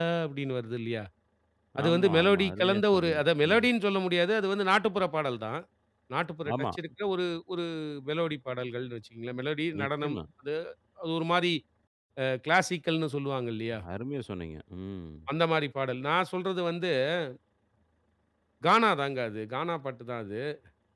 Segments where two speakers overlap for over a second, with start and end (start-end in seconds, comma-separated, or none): 1.8-3.7